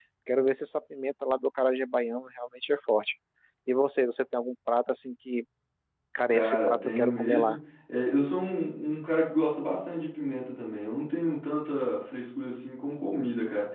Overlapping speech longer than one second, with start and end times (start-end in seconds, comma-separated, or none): 6.3-7.6